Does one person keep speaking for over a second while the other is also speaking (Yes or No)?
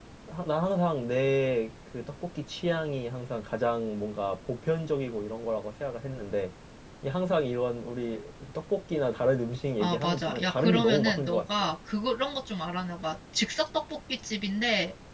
Yes